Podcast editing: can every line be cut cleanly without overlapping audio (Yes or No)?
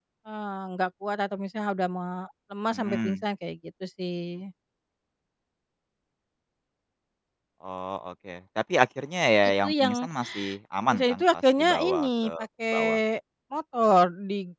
No